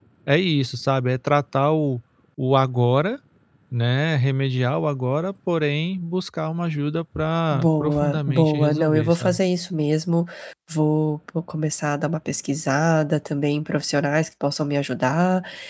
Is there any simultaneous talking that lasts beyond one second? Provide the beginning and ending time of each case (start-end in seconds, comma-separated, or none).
7.5-9.4